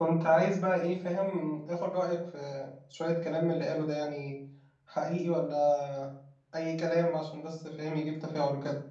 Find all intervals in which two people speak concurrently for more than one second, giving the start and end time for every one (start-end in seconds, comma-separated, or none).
none